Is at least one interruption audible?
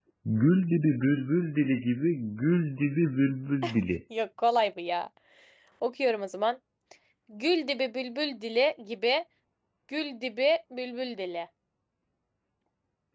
No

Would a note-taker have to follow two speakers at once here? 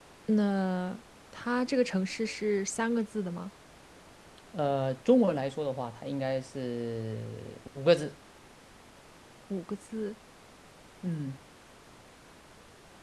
No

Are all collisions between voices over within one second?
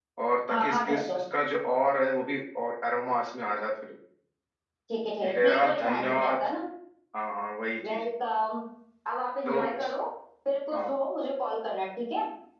No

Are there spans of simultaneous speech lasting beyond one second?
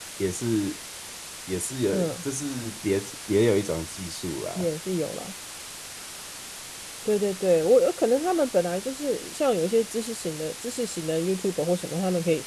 No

